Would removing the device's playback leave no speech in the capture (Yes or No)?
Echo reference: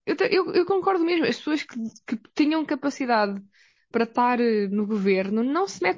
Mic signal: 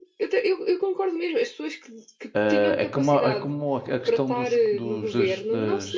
No